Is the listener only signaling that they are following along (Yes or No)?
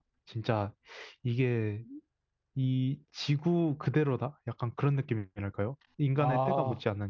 Yes